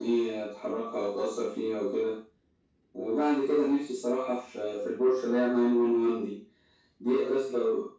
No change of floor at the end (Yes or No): Yes